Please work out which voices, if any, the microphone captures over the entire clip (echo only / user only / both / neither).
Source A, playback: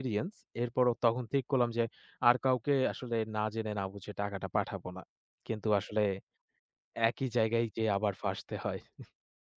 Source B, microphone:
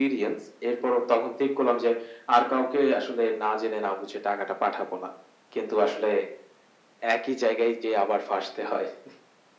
echo only